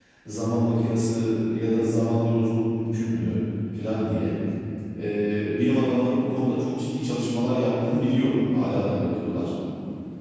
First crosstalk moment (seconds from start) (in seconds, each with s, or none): none